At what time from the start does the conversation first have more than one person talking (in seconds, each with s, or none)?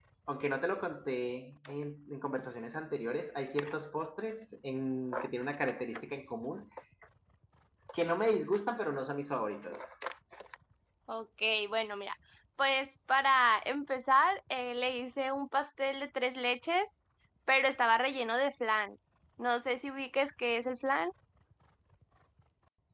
none